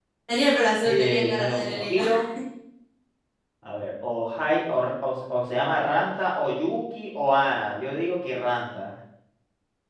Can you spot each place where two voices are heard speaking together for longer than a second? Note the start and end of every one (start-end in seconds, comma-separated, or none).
0.8-2.1